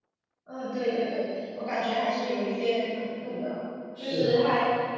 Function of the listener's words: listening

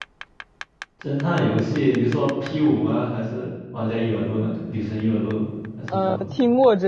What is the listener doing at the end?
taking over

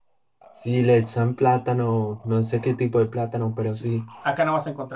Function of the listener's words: taking over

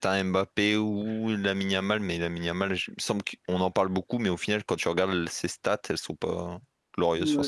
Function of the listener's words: taking over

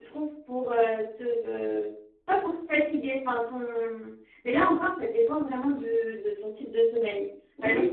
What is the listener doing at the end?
taking over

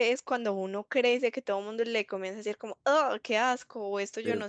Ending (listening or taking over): listening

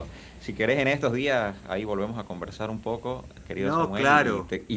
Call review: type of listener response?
listening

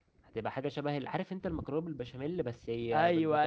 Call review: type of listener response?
taking over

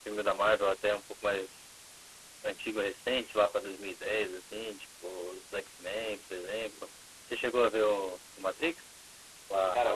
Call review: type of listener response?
taking over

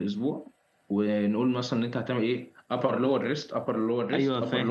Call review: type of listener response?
taking over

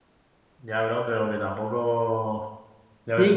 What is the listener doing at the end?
taking over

